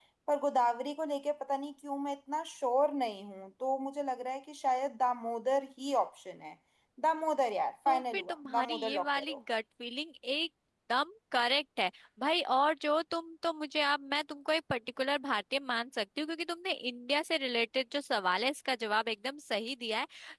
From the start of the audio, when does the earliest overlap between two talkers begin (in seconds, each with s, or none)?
7.9 s